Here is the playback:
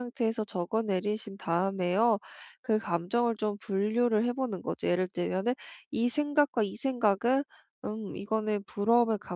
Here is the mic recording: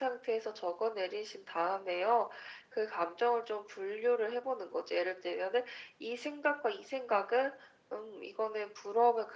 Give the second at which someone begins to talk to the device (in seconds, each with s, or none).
none